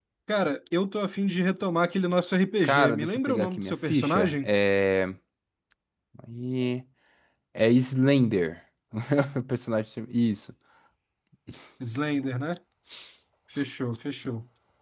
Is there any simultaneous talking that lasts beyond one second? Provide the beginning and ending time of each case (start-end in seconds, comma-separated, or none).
2.6-4.5